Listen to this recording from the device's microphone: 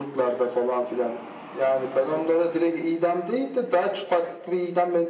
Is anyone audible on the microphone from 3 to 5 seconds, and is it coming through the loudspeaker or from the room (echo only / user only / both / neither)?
echo only